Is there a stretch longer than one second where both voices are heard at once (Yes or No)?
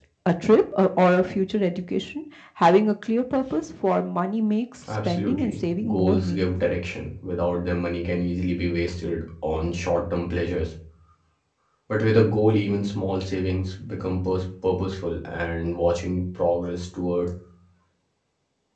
Yes